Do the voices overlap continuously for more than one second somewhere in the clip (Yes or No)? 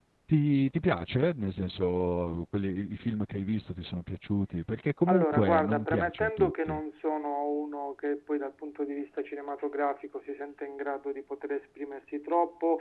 Yes